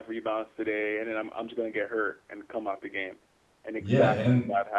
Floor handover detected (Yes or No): Yes